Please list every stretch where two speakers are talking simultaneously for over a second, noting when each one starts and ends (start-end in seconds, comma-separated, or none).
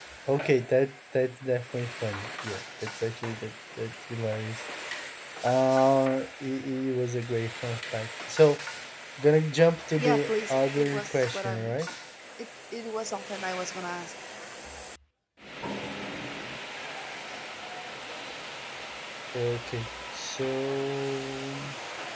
10.0-11.9